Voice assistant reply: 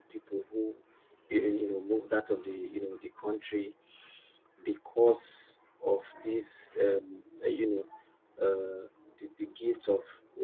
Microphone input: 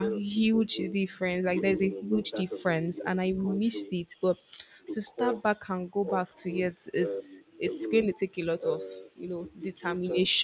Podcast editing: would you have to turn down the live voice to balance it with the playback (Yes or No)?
Yes